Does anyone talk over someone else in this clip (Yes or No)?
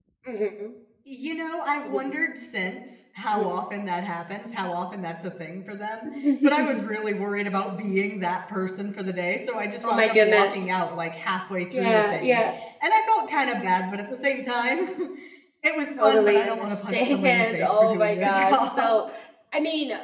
Yes